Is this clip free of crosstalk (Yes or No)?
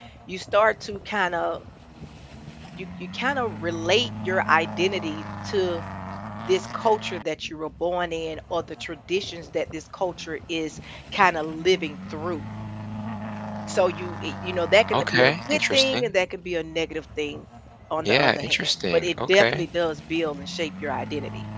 No